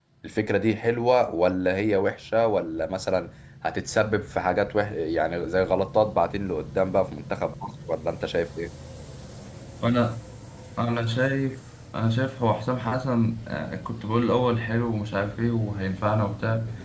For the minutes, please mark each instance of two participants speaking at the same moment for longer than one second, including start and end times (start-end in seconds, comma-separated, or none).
none